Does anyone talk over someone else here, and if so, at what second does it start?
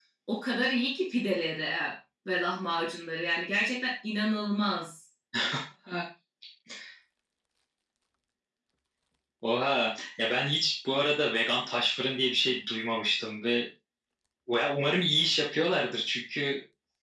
none

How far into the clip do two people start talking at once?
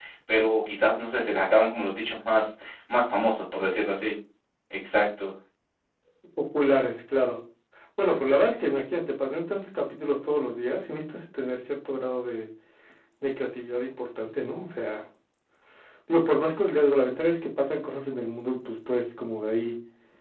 none

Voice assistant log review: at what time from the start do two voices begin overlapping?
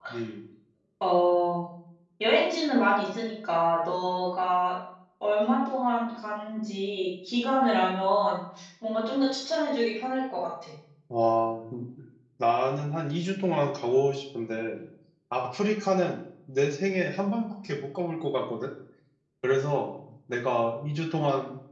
none

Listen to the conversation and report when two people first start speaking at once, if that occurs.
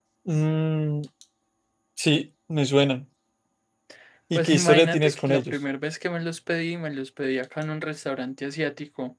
4.3 s

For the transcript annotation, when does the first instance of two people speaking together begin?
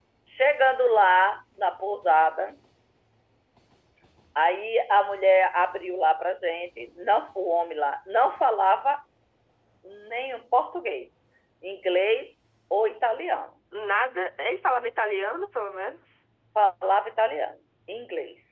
none

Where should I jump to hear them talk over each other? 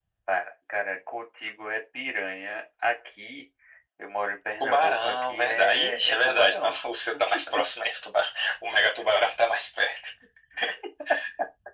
4.6 s

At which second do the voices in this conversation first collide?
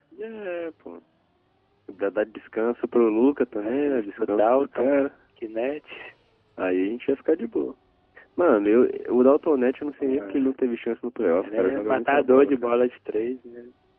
3.5 s

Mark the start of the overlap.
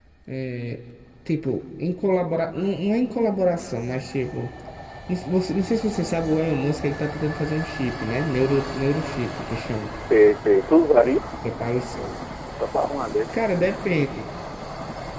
none

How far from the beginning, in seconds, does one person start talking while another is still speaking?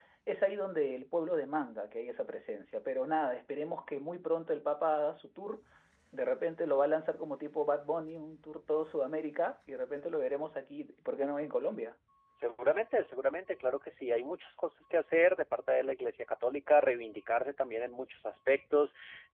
none

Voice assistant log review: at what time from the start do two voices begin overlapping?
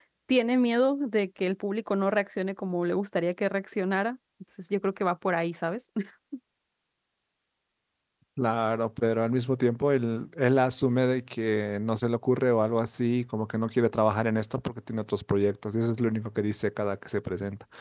none

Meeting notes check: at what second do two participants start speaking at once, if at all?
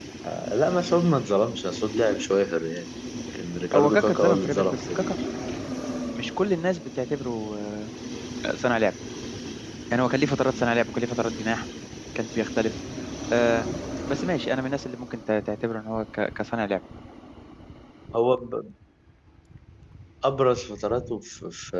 3.7 s

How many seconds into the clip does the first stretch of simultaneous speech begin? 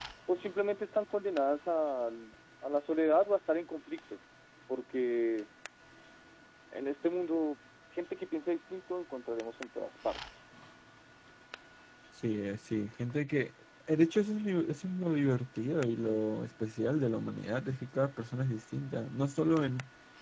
none

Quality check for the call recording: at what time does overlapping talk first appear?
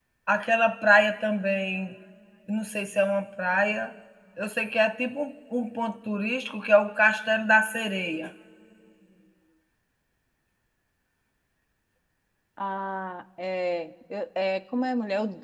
none

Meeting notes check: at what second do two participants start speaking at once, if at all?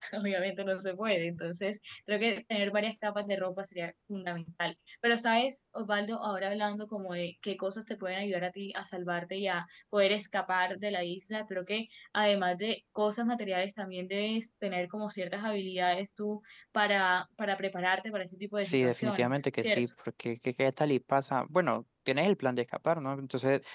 18.6 s

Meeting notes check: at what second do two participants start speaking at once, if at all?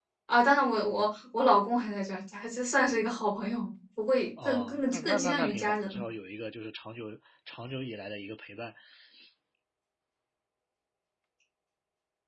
4.4 s

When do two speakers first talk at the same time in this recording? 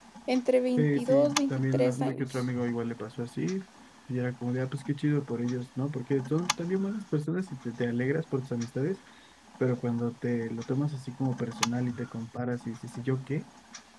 0.8 s

